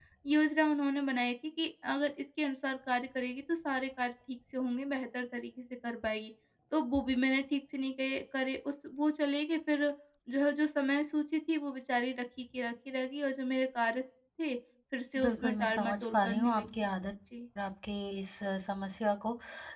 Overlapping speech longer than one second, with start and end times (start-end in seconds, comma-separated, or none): 15.2-16.9